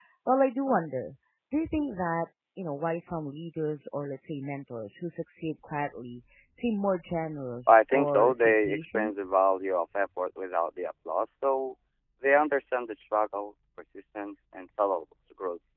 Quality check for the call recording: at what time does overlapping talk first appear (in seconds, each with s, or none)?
7.7 s